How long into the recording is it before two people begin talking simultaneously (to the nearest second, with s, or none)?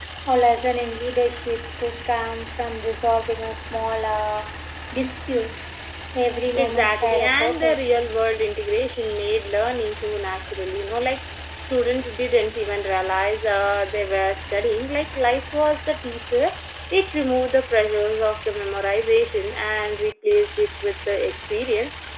7 s